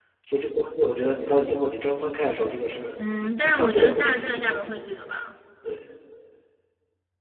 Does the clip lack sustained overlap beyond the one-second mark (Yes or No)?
No